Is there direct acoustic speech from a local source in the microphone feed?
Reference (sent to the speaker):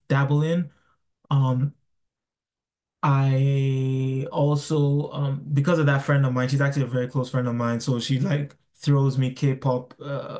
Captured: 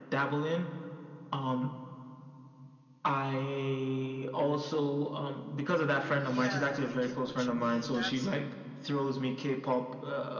Yes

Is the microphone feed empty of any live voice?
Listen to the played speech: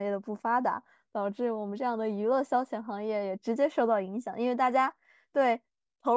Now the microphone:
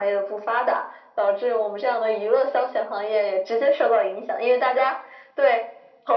Yes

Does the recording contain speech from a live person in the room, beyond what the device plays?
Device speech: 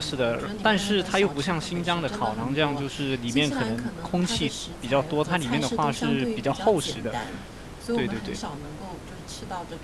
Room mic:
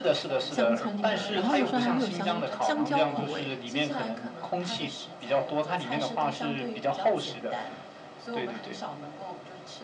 Yes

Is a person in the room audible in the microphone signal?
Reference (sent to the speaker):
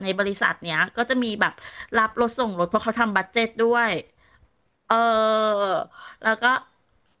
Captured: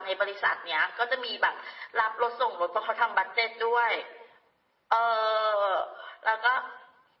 No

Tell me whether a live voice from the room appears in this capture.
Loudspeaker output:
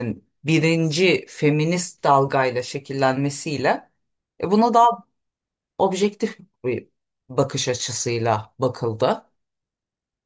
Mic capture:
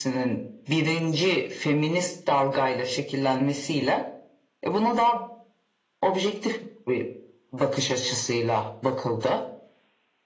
No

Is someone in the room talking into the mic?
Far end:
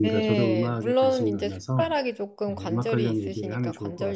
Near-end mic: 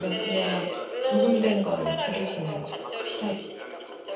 Yes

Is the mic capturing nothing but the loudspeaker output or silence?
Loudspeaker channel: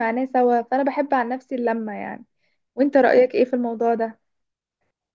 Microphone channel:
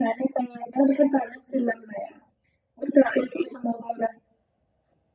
Yes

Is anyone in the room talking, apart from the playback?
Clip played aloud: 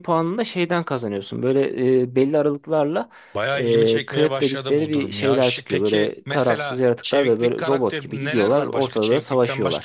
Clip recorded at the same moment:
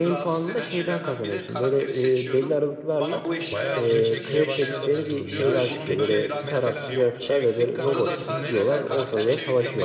Yes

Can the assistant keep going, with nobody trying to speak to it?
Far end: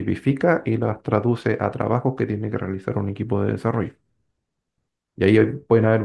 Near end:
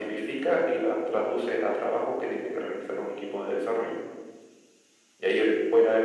Yes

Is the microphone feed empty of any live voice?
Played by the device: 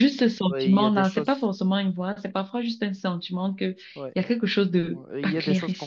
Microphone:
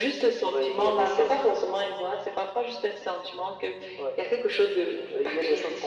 Yes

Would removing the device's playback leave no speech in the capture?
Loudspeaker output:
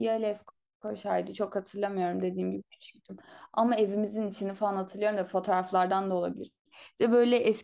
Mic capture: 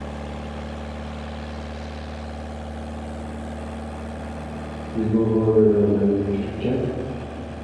No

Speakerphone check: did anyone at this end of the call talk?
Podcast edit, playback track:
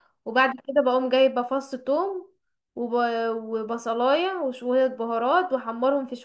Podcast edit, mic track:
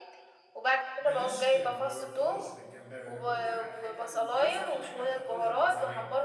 Yes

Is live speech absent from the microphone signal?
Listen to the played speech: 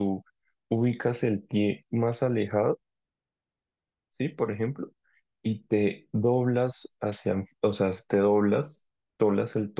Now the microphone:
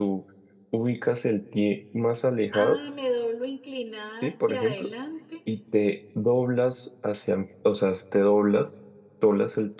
No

